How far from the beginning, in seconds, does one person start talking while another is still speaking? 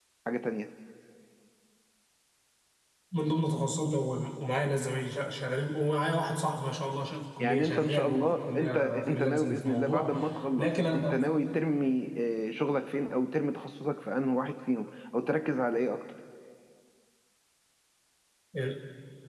7.4 s

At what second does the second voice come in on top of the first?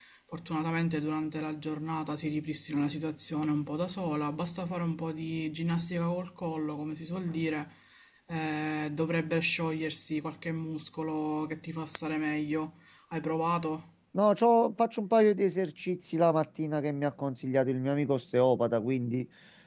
none

